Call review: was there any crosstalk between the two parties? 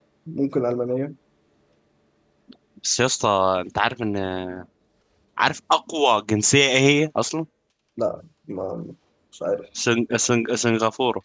No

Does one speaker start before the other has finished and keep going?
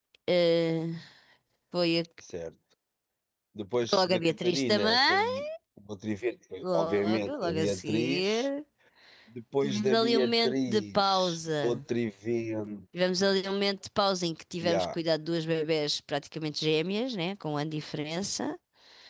Yes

